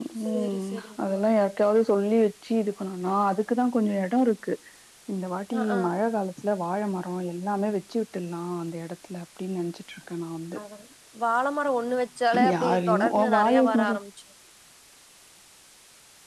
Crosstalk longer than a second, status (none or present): present